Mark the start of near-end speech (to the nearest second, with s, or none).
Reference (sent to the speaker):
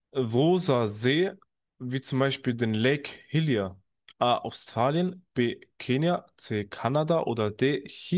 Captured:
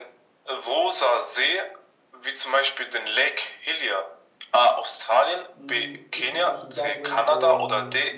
6 s